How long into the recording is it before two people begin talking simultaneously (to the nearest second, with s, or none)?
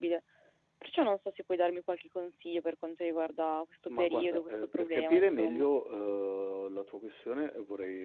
4 s